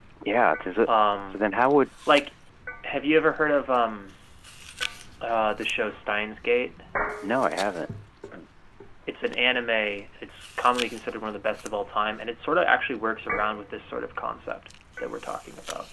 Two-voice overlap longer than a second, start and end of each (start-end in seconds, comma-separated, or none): none